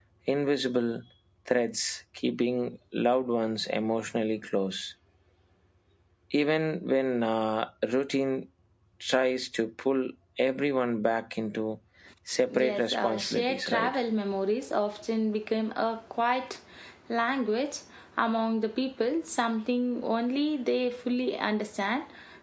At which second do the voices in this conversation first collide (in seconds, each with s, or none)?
12.6 s